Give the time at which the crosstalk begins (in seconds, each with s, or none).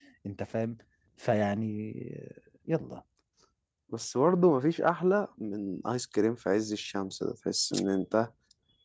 none